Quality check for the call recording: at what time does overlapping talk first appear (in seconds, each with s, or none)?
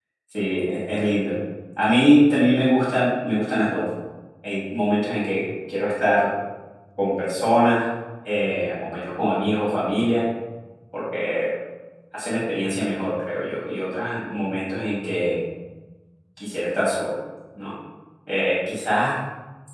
none